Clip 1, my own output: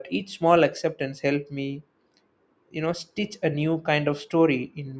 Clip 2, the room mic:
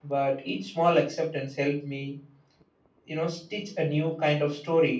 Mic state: echo only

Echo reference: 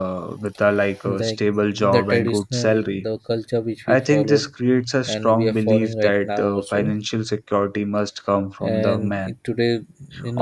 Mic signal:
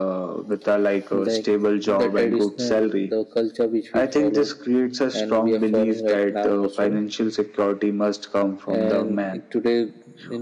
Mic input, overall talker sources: echo only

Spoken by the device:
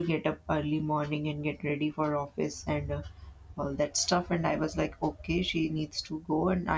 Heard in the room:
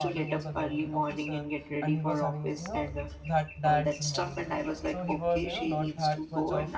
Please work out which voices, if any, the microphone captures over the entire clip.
both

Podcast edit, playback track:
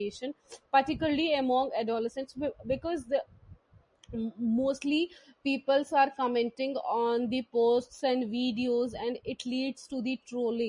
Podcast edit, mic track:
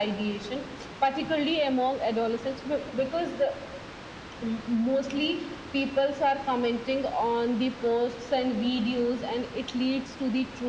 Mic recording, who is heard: echo only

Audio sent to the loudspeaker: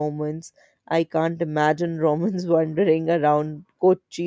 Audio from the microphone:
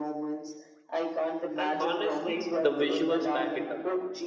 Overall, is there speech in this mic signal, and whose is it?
both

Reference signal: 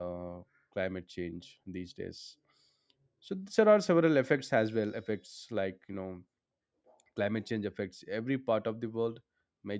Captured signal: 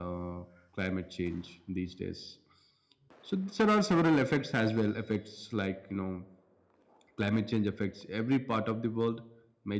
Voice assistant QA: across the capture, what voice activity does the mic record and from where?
echo only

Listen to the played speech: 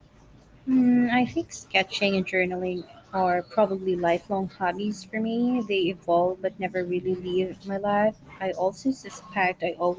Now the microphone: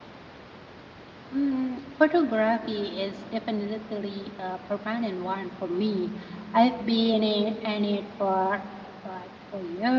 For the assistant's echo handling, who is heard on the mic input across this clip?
user only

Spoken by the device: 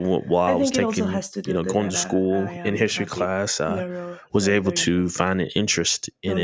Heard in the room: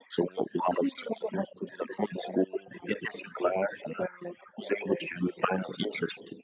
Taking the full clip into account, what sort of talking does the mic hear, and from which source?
echo only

